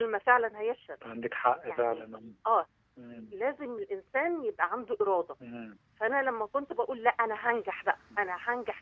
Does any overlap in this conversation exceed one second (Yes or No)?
No